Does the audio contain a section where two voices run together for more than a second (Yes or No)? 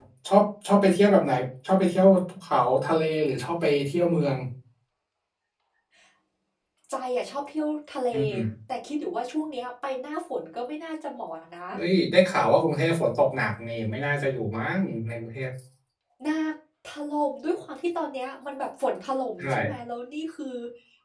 No